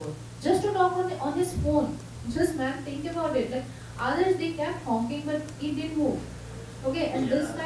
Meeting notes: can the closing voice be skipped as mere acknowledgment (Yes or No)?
Yes